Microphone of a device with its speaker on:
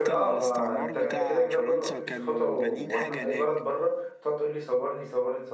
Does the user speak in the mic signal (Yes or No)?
Yes